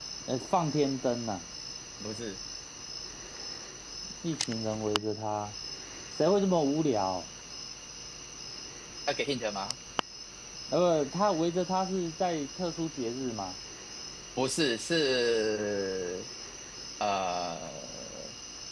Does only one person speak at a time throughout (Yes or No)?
Yes